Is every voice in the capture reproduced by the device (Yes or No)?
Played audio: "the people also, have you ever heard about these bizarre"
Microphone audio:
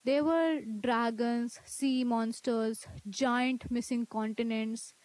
No